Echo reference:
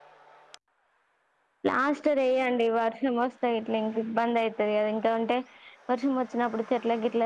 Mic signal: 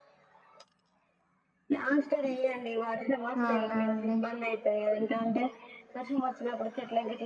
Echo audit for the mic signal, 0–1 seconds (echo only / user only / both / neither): neither